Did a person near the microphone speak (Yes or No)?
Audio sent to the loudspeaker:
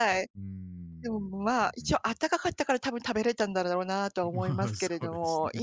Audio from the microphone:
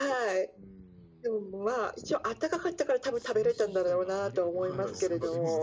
Yes